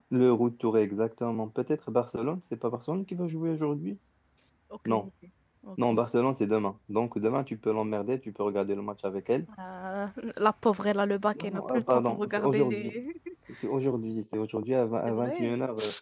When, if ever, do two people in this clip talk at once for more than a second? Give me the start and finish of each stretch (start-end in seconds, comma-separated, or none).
11.4-12.9